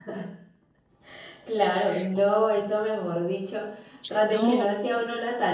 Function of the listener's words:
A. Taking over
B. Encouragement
B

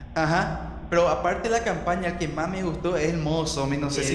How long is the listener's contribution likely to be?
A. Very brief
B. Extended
B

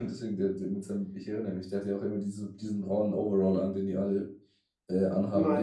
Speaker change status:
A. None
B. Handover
B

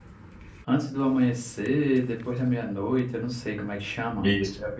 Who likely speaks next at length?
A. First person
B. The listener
B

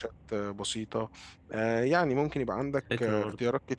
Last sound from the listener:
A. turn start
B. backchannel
B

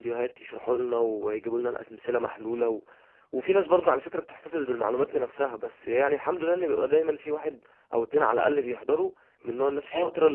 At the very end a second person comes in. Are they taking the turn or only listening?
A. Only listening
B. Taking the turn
B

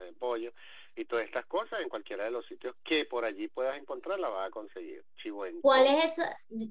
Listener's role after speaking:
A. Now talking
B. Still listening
A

